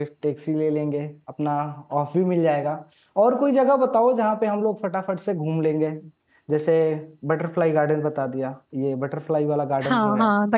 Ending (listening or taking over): taking over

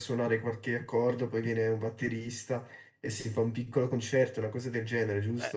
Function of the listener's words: taking over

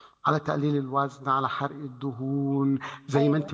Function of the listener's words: listening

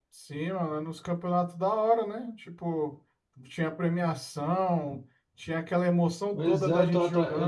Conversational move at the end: taking over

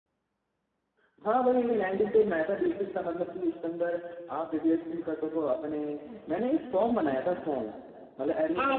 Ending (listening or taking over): taking over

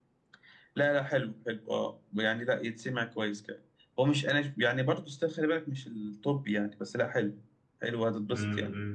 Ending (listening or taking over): taking over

